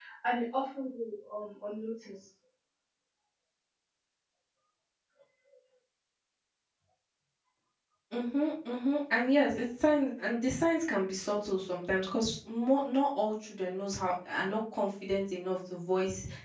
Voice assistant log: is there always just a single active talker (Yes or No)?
Yes